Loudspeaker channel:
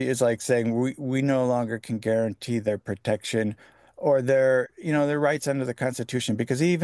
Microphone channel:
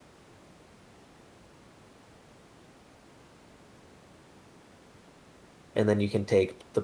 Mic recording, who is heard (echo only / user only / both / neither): user only